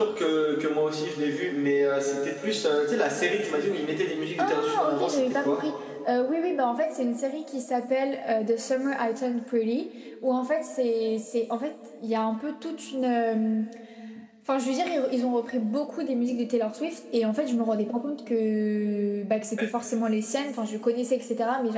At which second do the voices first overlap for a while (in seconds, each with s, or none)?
4.4 s